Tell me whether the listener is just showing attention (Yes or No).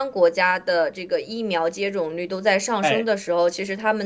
Yes